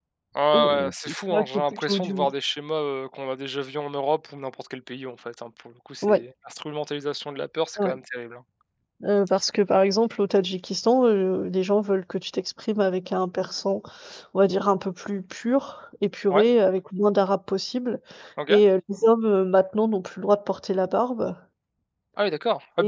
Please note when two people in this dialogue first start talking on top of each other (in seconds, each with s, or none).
0.5 s